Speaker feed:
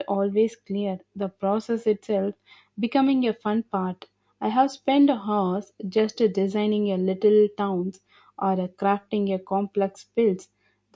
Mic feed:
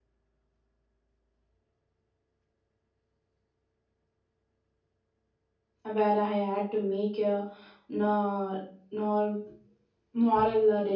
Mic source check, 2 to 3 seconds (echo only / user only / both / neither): neither